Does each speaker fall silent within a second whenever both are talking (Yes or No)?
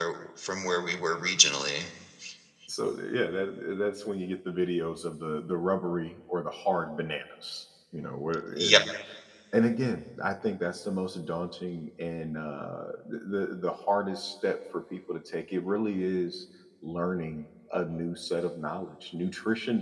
Yes